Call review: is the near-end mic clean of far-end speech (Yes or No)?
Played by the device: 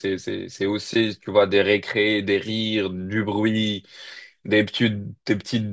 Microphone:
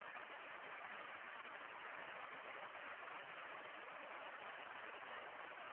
Yes